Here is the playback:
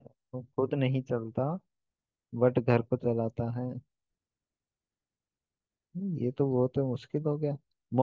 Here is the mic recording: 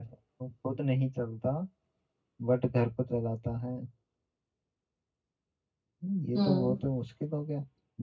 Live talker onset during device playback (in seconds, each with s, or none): 6.3 s